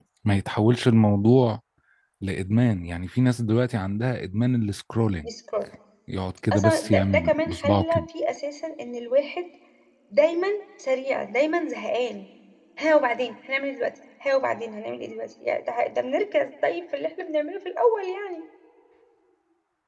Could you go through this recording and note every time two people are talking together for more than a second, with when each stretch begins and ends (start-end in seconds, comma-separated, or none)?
6.5-8.0